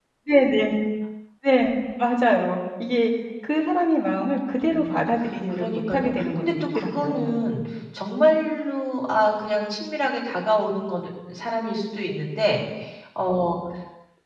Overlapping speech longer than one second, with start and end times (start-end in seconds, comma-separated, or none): 5.5-7.3